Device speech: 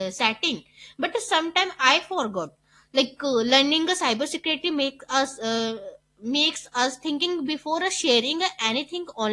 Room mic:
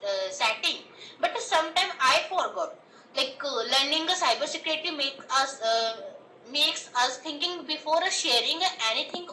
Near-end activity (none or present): none